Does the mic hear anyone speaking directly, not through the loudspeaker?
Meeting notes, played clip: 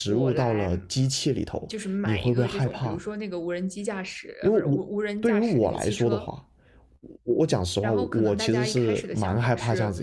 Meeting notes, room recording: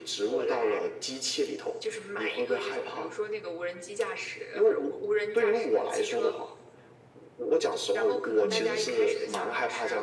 Yes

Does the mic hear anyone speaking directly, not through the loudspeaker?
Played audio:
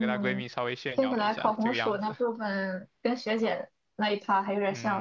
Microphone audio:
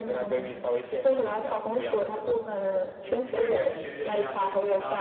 Yes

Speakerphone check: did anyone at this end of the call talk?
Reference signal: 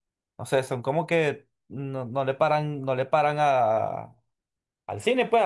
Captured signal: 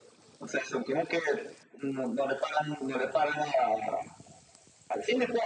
No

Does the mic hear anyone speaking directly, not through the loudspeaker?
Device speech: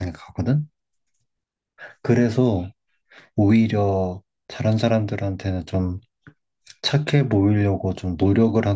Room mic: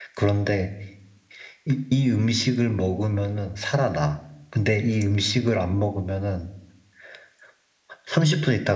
Yes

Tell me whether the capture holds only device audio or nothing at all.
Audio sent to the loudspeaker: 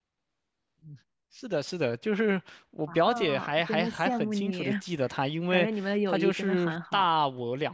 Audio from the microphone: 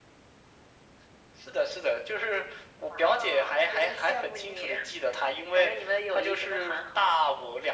Yes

